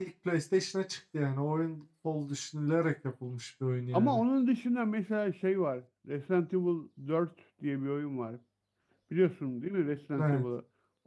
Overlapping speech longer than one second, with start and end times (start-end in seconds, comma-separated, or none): none